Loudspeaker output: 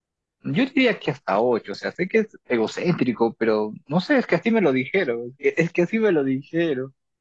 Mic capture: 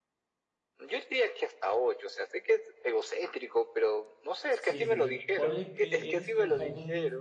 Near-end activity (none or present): present